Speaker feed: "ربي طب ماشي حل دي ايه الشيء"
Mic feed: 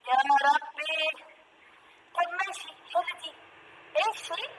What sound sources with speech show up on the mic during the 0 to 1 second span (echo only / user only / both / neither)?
echo only